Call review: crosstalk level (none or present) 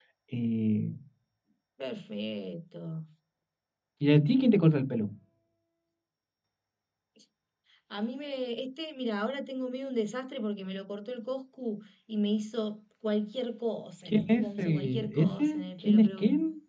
present